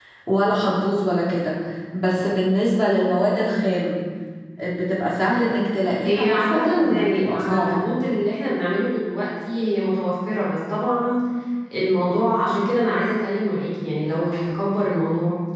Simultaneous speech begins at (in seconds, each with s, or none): 6.0 s